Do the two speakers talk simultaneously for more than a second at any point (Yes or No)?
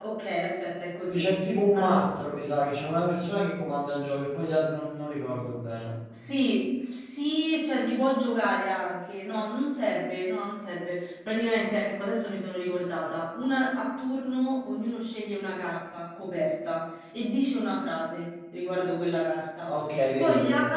No